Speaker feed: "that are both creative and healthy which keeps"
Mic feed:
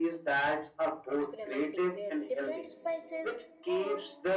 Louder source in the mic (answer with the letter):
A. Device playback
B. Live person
A